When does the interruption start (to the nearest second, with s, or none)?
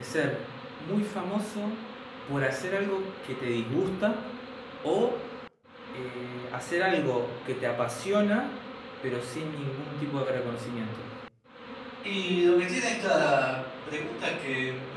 none